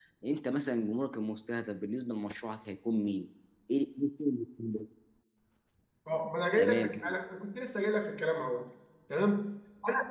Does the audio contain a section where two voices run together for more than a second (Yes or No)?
No